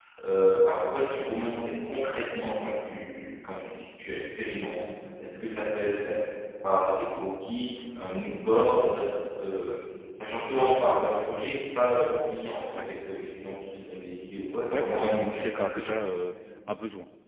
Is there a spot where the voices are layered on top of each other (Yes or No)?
Yes